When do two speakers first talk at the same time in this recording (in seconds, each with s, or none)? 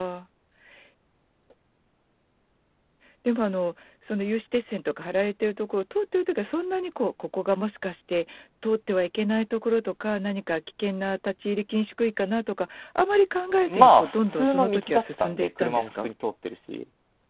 13.7 s